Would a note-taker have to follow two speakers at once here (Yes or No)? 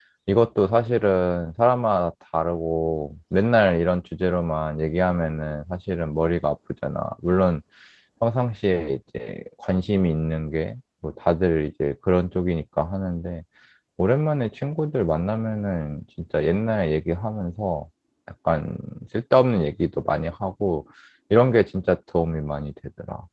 No